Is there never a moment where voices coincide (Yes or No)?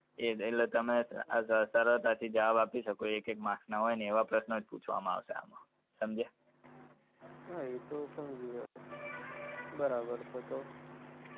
Yes